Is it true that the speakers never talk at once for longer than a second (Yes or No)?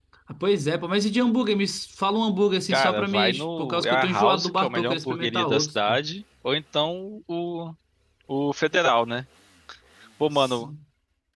No